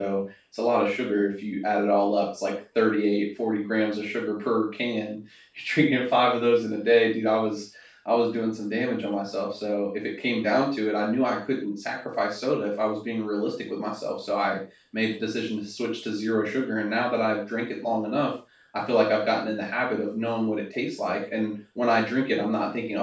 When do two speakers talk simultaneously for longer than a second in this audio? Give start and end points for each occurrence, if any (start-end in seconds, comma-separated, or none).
none